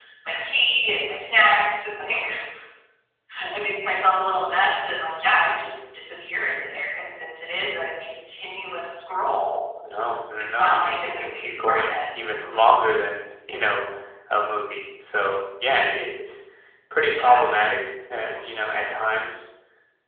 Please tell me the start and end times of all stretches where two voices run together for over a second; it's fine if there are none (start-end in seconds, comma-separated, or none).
10.4-12.3